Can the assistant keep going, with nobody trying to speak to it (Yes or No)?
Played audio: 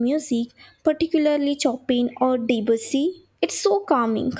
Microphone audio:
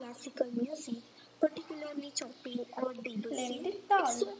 No